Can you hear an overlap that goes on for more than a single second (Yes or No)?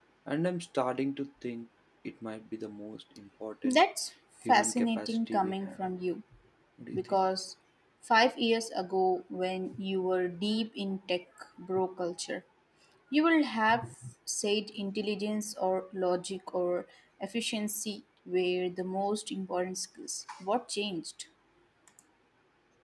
Yes